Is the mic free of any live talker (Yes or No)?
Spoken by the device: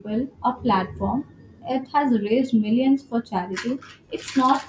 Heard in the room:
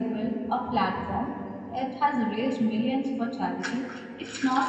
Yes